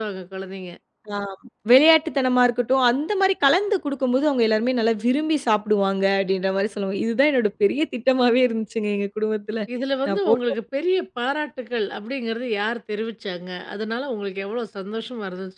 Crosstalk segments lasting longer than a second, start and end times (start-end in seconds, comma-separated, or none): none